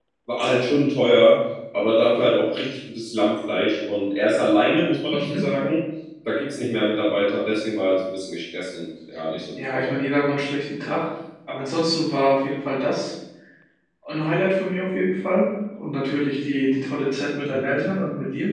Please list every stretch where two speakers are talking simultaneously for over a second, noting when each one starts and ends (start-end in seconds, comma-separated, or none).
none